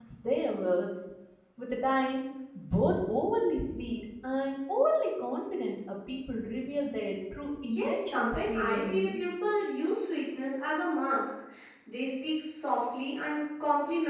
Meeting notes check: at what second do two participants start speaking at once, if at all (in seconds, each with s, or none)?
7.7 s